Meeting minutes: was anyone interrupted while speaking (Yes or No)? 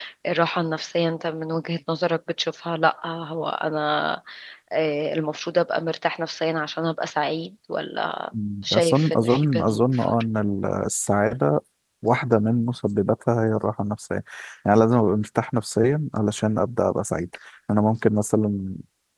Yes